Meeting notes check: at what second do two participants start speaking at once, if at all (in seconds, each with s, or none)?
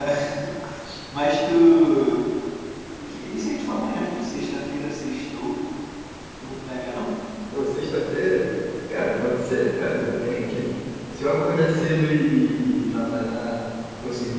none